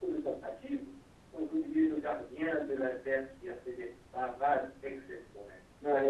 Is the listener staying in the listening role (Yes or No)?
No